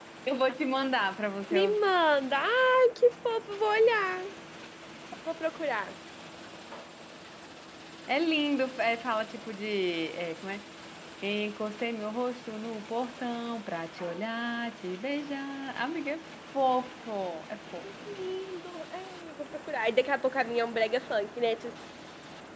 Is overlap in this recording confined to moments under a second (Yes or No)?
Yes